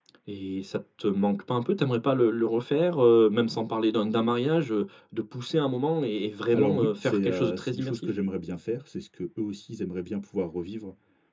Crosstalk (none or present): present